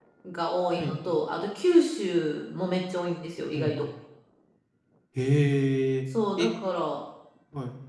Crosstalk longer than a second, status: none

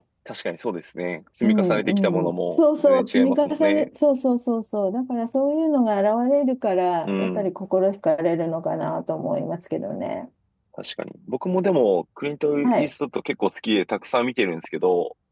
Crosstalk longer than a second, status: present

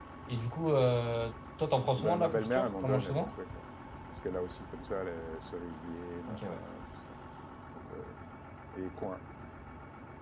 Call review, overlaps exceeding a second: present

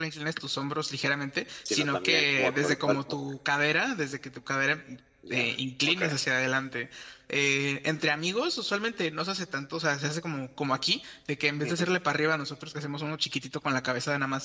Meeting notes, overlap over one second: present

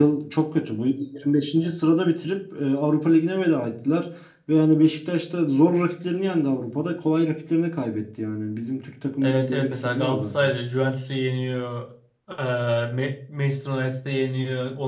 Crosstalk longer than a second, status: present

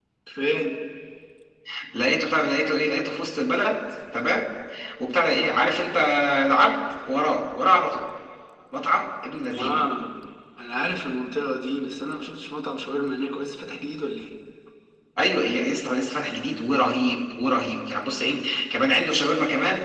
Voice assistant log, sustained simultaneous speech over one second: none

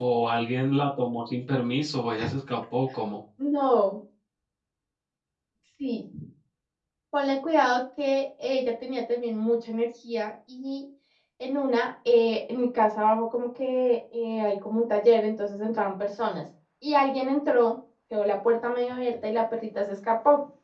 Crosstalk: none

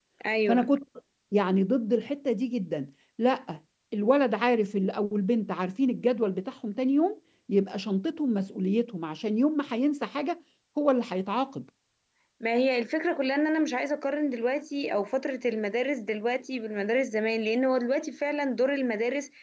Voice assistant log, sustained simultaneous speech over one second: none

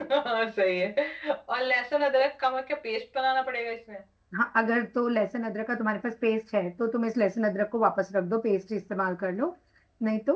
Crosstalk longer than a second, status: none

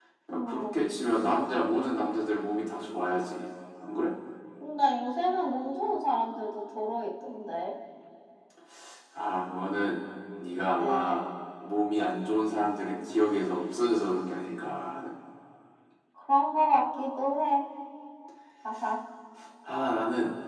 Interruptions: present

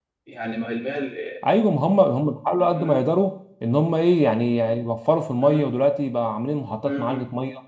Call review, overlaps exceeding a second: none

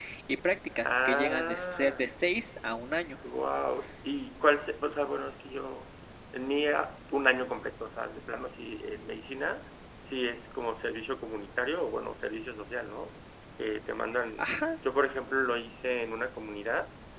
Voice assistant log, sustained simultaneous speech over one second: present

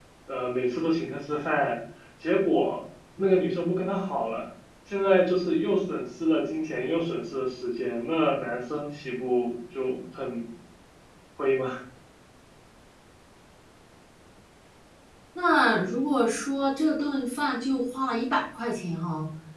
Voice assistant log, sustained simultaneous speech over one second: none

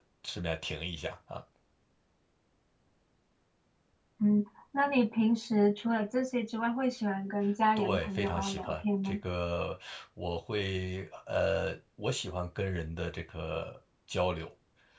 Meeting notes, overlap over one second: present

